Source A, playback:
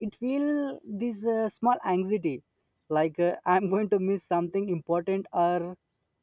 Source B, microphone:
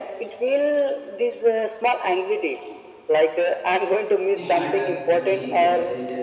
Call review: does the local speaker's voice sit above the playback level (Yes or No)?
No